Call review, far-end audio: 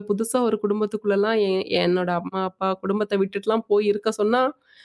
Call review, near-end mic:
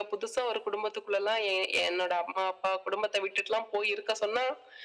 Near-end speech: none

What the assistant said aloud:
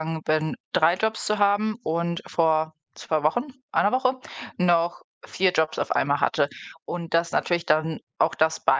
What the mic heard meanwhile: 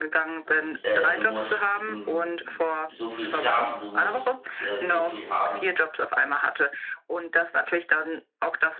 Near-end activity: present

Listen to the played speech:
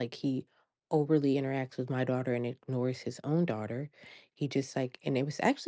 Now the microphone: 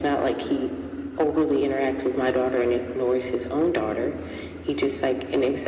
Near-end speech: none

